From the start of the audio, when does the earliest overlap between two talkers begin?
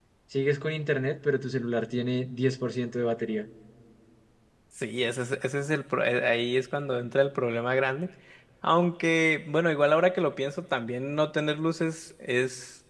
none

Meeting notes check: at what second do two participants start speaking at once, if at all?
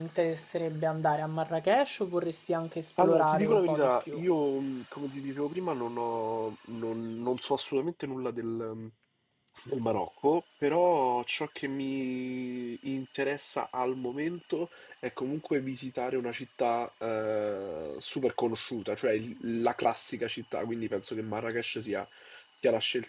3.0 s

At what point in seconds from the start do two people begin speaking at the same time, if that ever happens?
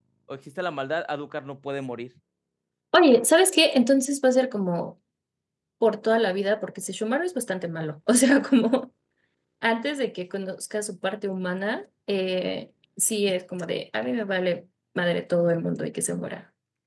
none

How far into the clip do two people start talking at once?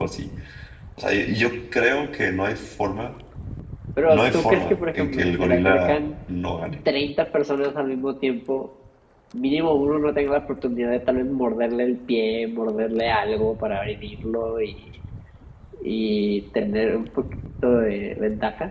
4.1 s

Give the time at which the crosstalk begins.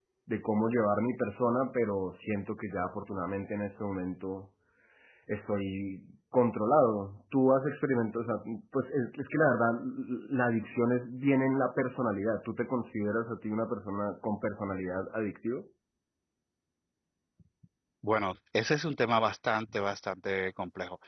none

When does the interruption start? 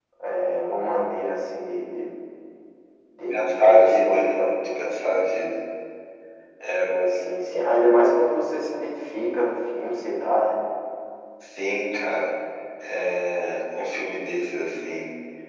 3.3 s

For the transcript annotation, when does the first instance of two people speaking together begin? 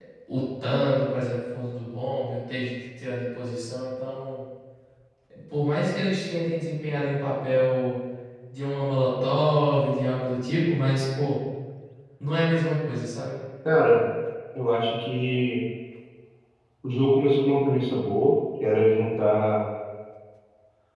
none

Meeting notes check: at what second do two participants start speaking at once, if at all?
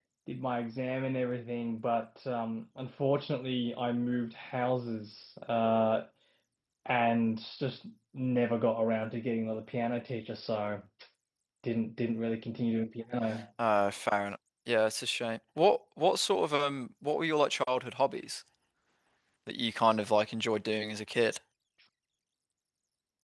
none

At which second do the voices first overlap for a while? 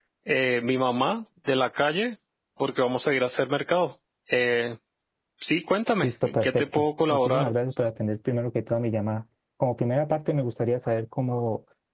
6.0 s

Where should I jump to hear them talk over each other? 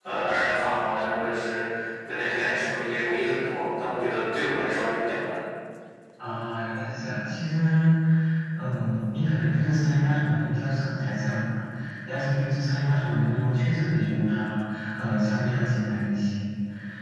none

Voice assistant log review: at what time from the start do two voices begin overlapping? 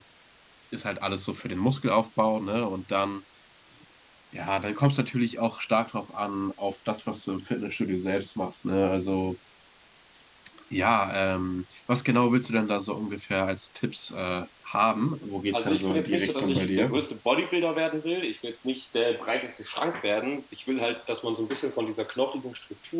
15.5 s

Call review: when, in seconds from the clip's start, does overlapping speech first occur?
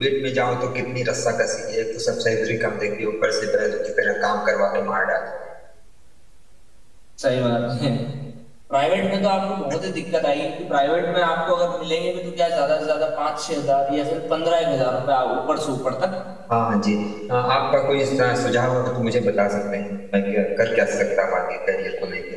none

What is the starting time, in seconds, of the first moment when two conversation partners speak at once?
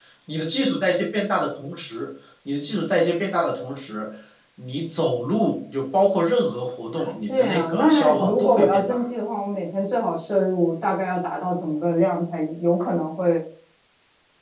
6.9 s

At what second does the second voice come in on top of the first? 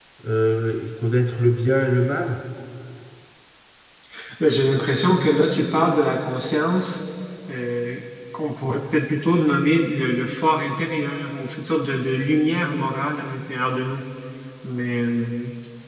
none

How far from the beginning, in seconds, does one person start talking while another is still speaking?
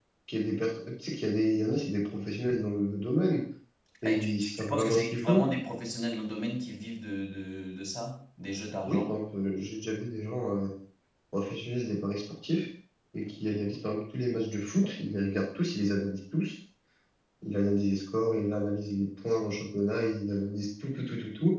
4.0 s

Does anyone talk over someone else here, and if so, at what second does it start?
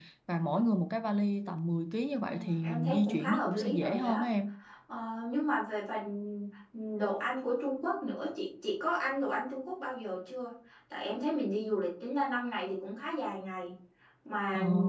2.2 s

